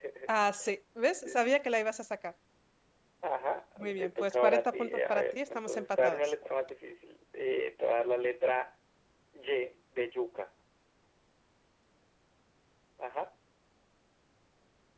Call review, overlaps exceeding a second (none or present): present